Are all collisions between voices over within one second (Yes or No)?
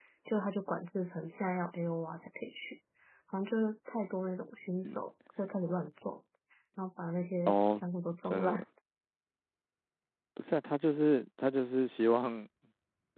Yes